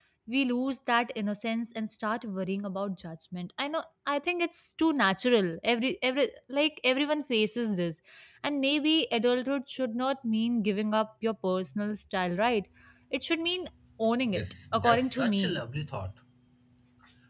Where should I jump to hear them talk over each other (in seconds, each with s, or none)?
14.2 s